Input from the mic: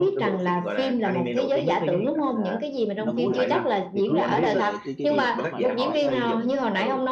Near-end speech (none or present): present